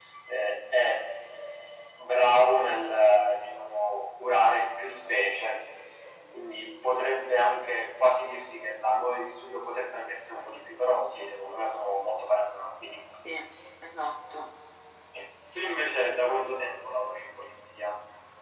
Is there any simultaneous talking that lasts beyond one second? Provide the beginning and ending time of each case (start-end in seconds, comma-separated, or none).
none